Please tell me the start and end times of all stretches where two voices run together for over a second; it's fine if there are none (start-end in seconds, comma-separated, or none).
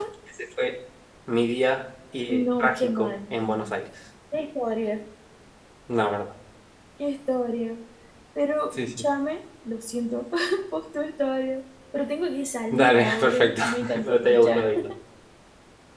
2.3-3.7, 12.7-14.6